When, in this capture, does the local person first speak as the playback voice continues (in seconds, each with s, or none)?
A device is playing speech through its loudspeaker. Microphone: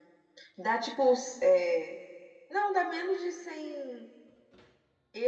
none